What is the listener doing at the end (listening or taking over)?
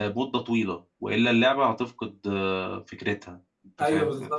taking over